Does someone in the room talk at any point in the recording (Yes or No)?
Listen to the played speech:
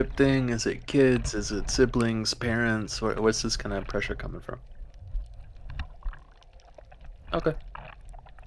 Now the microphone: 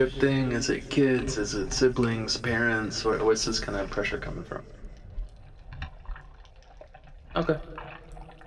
No